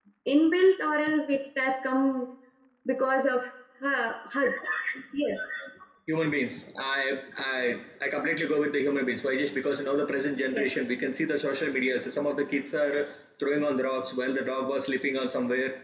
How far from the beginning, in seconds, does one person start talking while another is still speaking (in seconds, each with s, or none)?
none